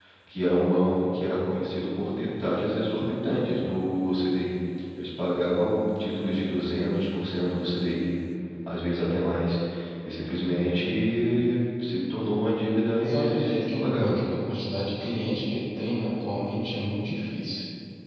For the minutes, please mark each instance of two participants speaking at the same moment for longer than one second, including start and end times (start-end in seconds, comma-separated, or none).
13.0-14.3